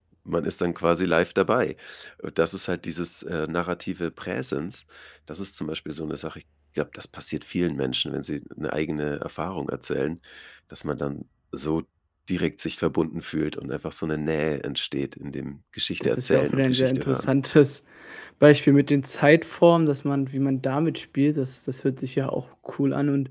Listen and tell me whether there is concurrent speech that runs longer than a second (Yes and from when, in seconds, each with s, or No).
Yes, from 16.0 s